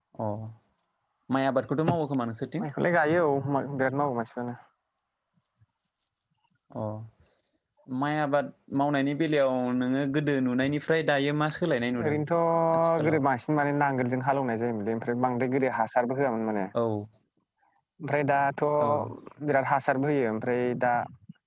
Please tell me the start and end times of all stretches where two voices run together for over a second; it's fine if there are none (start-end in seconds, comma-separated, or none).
none